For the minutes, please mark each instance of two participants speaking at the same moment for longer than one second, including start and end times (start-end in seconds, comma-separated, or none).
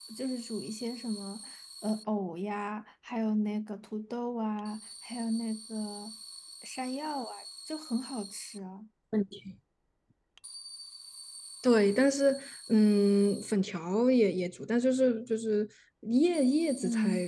none